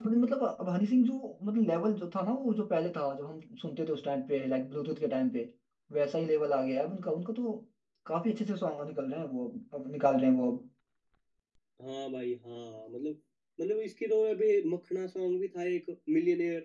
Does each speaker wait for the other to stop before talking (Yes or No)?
Yes